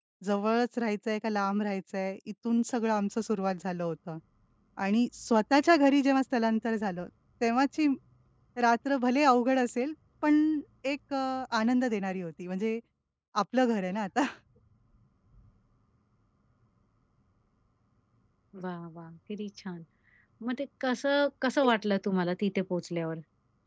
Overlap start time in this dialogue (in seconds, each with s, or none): none